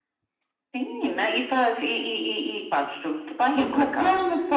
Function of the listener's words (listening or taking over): taking over